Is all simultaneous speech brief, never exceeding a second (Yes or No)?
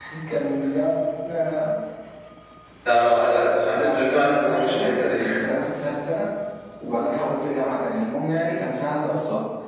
No